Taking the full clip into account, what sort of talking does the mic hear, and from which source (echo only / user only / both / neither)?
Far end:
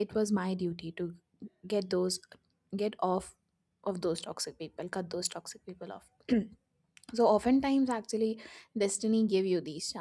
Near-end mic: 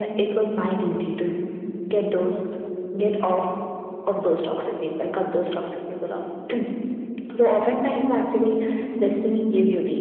echo only